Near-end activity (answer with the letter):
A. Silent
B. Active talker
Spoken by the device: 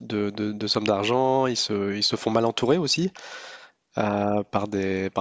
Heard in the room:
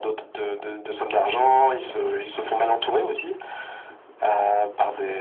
A